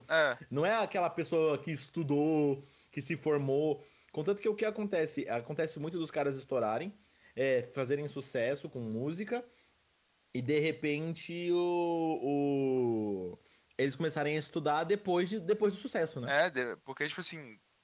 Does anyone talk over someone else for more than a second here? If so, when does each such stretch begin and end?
none

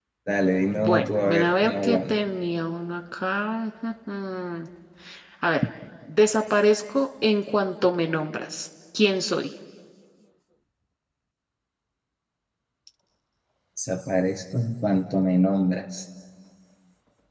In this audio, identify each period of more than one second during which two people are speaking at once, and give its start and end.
0.7-2.2

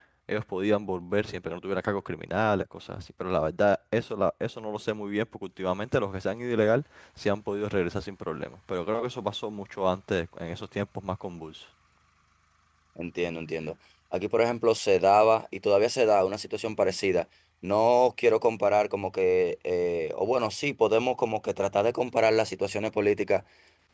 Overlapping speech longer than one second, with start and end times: none

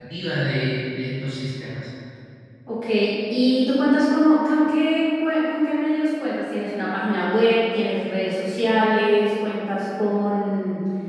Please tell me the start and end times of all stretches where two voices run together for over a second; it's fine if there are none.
none

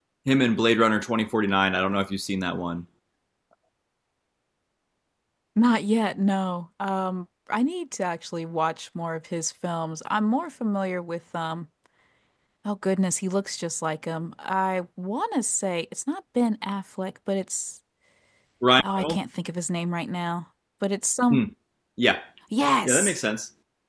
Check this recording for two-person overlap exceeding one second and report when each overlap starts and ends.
none

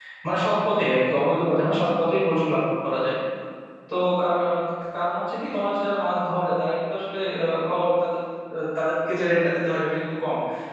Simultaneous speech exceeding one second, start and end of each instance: none

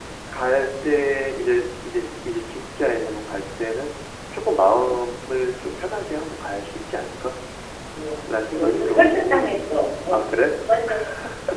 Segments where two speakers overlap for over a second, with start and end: 8.3-9.6

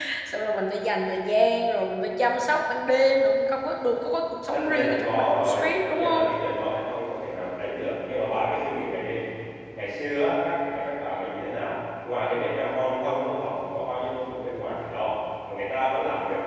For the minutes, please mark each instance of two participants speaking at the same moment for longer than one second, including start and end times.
4.5-6.2

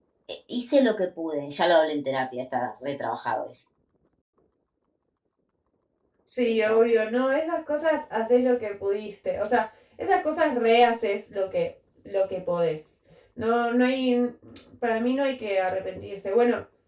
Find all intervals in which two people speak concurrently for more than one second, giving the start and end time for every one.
none

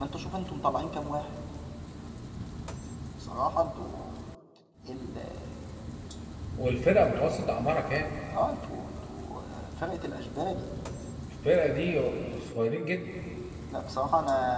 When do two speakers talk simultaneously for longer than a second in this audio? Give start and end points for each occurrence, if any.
none

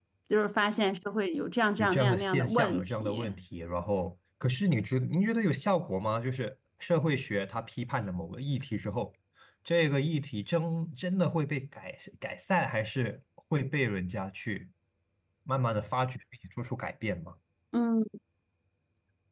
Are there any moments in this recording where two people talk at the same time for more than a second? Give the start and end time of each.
1.8-3.2

